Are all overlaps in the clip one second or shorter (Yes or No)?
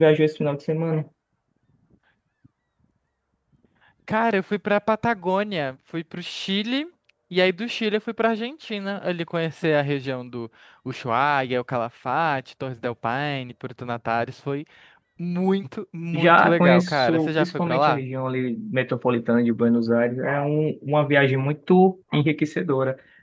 No